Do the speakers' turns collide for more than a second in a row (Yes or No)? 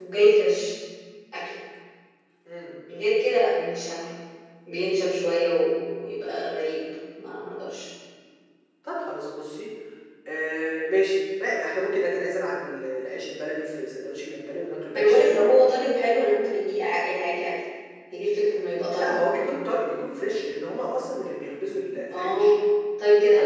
No